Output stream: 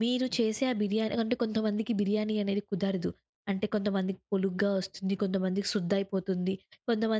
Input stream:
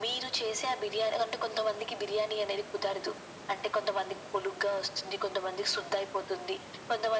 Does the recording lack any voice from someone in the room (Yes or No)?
Yes